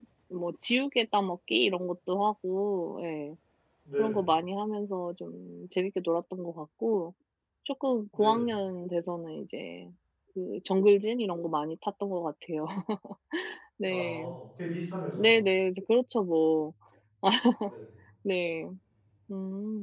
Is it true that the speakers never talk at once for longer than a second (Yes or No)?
Yes